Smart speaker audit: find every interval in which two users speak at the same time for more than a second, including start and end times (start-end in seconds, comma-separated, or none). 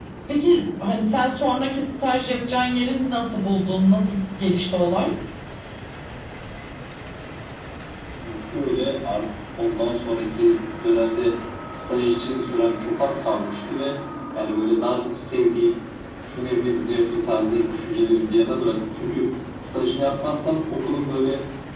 none